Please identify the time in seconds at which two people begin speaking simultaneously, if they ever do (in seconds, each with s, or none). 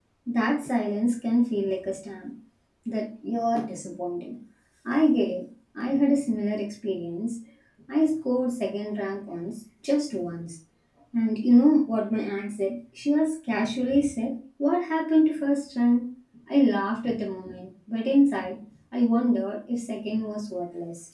none